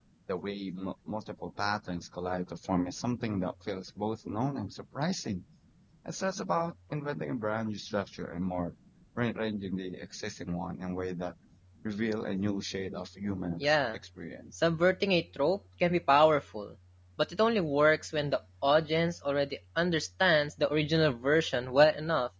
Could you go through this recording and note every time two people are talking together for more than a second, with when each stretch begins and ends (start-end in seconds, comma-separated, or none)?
none